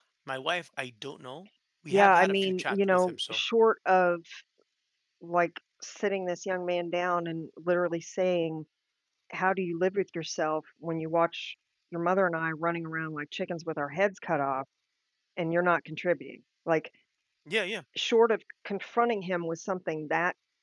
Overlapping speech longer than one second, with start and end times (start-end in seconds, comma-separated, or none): 1.9-3.4